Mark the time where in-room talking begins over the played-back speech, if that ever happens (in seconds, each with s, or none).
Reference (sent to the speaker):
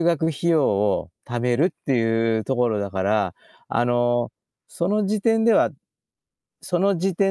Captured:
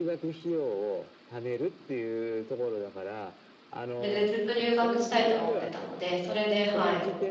4.0 s